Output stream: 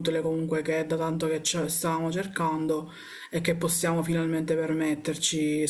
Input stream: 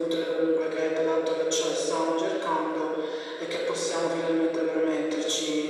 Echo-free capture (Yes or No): No